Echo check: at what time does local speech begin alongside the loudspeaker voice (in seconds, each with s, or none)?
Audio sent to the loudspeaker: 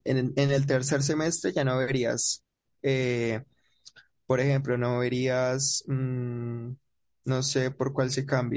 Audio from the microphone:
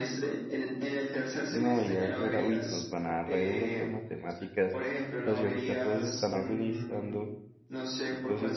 1.5 s